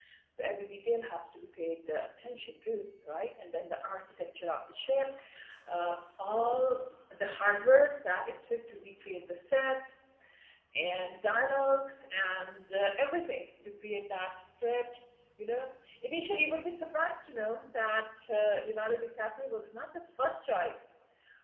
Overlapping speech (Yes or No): No